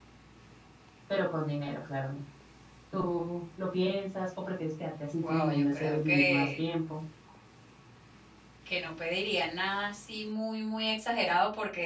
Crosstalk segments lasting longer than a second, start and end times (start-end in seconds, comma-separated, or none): 5.2-6.6